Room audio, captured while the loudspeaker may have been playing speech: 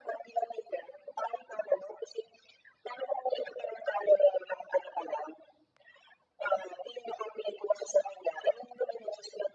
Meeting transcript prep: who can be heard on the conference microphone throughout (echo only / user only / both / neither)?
echo only